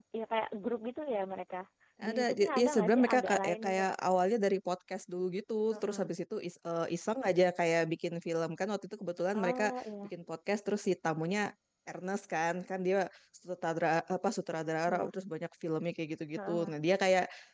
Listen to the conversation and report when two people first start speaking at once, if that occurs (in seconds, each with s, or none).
2.1 s